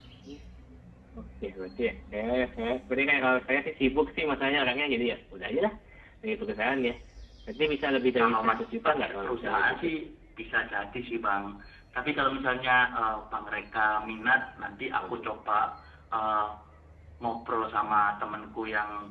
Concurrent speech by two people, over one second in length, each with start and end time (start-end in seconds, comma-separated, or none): 8.2-9.8